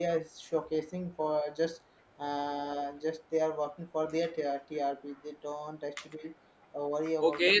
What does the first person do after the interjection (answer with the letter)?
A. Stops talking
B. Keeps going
A